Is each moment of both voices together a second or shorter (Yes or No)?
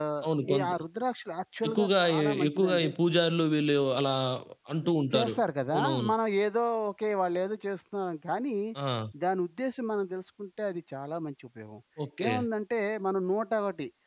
No